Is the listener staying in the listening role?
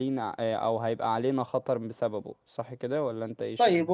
No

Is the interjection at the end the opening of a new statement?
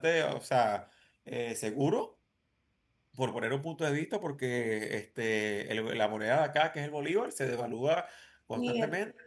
Yes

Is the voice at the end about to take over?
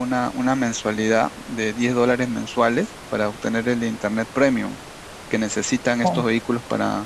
No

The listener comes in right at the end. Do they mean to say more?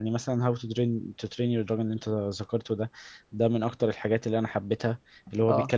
No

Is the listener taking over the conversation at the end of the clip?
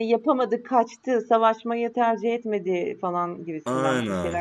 Yes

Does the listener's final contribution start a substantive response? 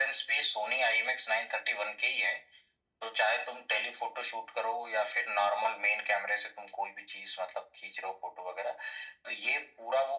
No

